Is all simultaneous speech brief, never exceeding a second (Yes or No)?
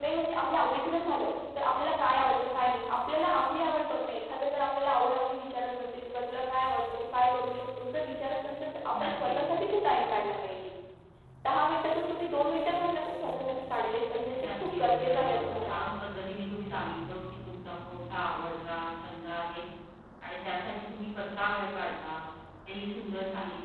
No